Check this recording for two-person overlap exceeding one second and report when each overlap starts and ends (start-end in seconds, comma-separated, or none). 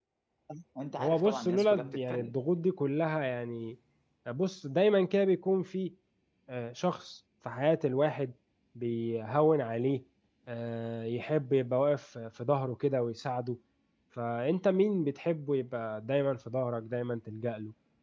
1.0-2.3